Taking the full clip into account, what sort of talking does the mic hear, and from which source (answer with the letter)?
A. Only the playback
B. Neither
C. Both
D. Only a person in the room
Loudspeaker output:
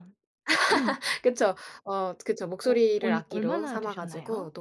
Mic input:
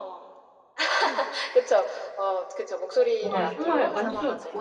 C